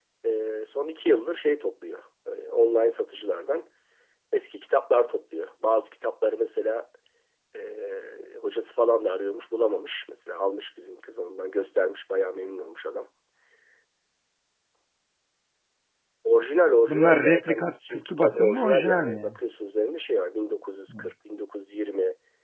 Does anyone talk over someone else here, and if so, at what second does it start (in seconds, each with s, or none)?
16.9 s